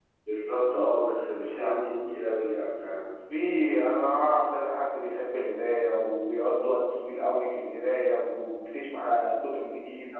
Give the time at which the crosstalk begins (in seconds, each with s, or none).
none